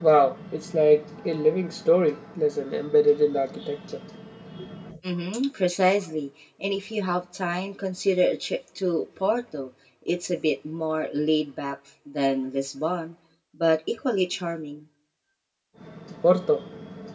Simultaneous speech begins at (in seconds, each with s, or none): none